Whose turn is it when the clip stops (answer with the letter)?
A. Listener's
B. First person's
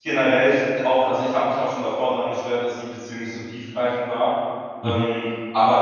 B